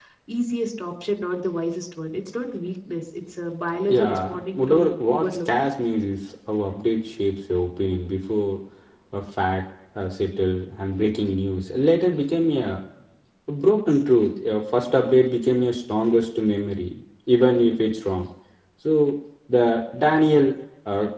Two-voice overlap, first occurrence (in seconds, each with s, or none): 3.9 s